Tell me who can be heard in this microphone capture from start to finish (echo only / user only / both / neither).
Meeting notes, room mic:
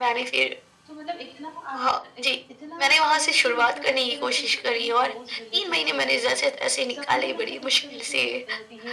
both